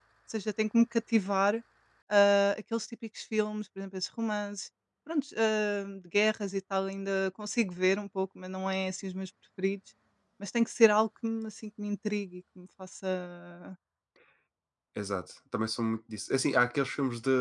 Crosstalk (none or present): none